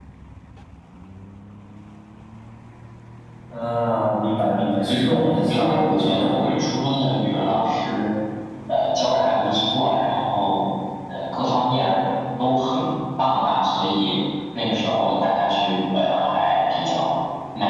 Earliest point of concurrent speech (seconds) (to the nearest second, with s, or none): 5 s